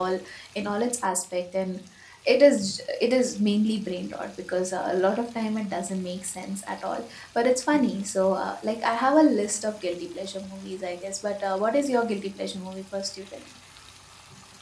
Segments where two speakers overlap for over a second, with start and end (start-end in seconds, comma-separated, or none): none